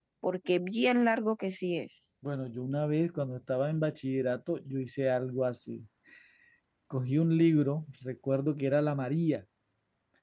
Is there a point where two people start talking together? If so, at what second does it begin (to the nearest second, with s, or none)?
none